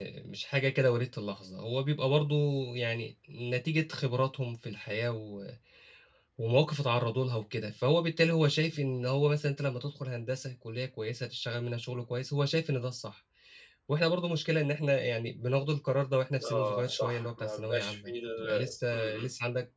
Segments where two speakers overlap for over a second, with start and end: 16.4-19.3

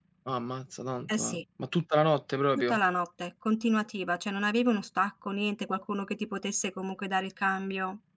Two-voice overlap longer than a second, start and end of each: none

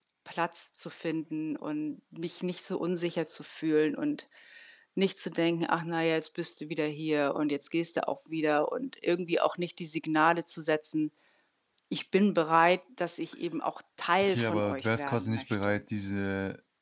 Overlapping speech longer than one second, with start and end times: 14.2-15.8

